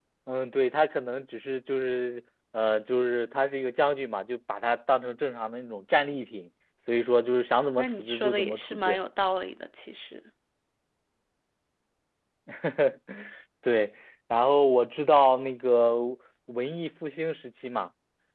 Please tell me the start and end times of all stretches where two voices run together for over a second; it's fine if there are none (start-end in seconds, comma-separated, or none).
7.8-9.0